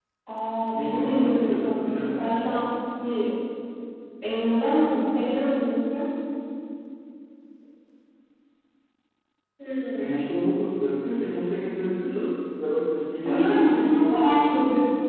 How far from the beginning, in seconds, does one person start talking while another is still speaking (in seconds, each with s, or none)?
0.7 s